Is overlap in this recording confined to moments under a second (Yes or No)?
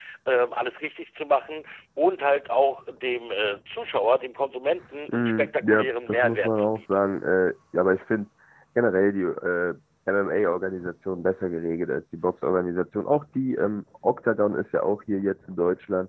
No